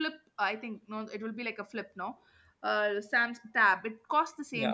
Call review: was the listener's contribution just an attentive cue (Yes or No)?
Yes